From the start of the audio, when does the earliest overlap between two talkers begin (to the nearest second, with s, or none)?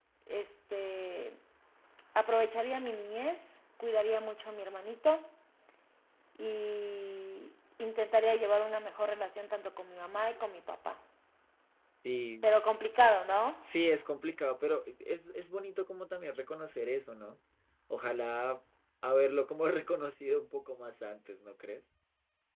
none